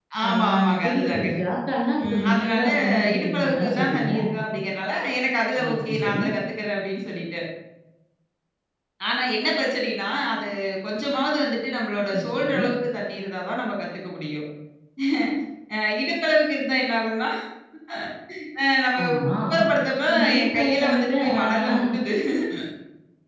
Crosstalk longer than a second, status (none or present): present